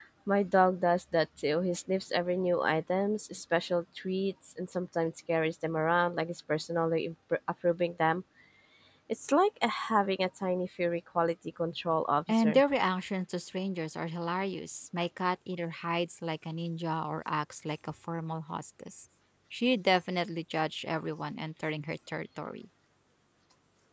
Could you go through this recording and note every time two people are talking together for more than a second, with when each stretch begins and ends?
none

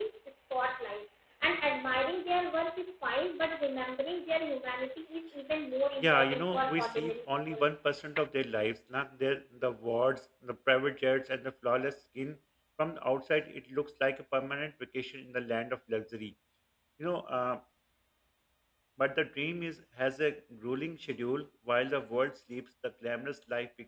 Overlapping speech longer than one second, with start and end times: 6.0-7.7

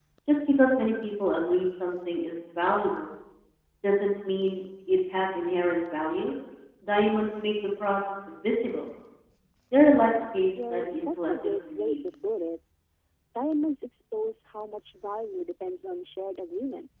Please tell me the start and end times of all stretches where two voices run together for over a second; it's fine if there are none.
10.7-11.9

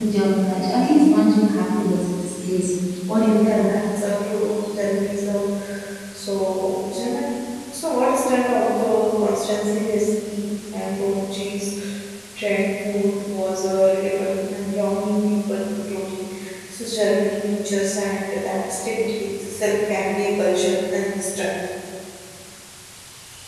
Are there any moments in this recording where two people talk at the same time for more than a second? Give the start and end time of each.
none

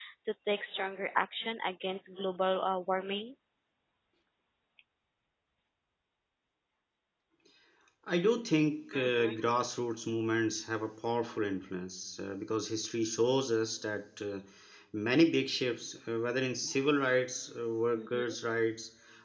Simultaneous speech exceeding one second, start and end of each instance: none

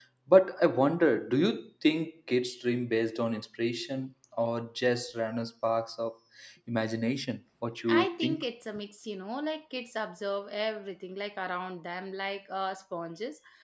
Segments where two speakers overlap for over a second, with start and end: none

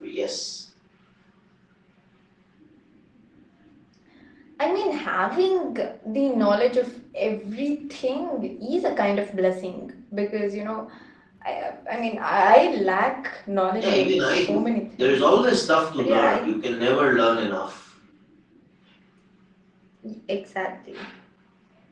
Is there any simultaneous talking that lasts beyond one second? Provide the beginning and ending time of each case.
13.8-15.2

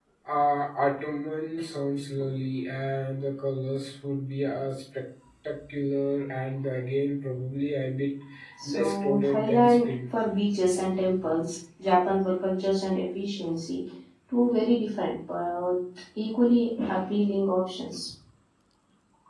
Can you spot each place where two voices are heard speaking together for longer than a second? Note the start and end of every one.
8.7-9.9

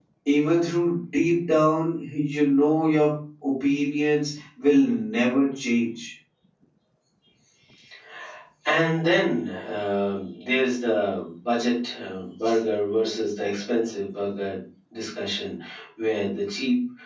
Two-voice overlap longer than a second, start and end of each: none

